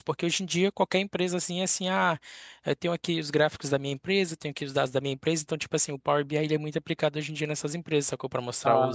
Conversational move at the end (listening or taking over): taking over